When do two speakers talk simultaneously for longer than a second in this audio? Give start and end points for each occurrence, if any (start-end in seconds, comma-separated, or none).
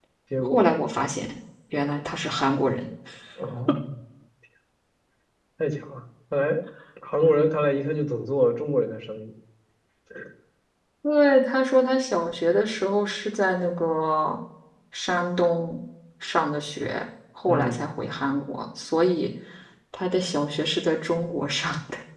none